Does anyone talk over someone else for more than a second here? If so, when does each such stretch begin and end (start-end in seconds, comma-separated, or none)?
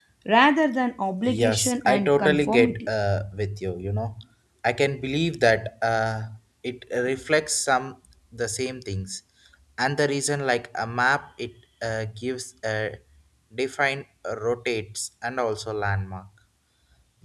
1.2-2.9